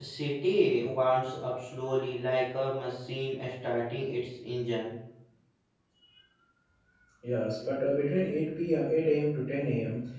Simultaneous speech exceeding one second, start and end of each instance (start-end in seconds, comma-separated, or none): none